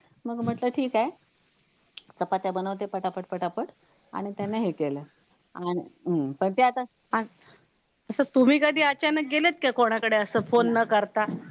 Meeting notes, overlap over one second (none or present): none